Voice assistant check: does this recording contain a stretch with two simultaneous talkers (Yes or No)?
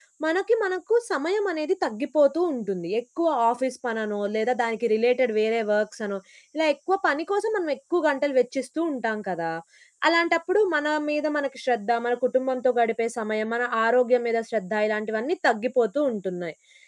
No